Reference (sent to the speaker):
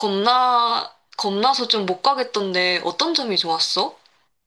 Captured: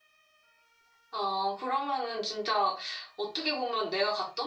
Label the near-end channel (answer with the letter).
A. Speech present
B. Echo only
A